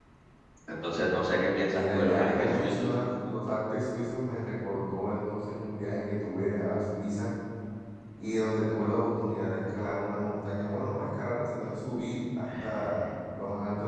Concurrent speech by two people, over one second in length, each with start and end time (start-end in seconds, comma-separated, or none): 1.7-2.9